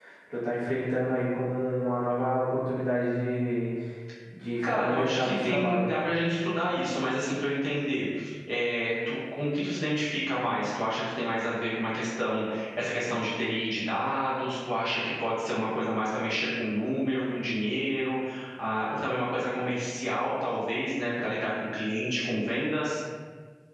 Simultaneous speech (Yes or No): Yes